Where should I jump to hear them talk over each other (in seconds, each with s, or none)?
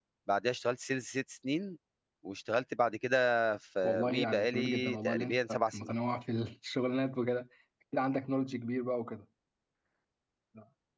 3.8 s